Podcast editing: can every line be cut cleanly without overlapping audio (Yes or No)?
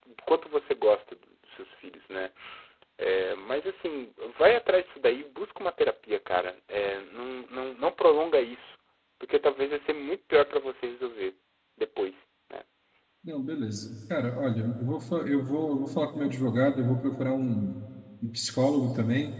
Yes